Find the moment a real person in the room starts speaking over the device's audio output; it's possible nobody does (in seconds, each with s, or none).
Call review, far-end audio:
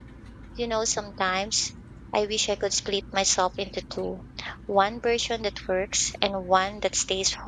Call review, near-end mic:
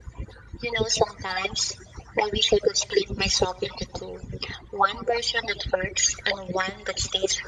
none